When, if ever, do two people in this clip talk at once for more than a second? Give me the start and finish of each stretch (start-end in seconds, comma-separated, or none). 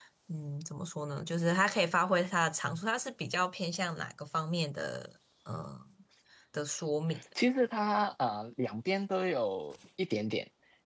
none